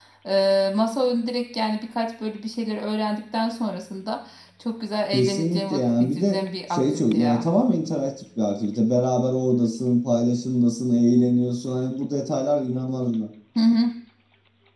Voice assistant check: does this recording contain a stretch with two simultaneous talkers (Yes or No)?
Yes